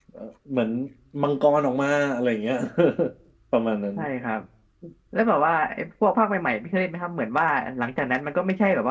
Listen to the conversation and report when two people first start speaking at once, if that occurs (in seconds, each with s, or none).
none